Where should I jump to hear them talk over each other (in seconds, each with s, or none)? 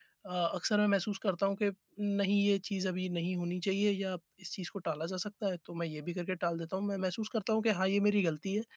none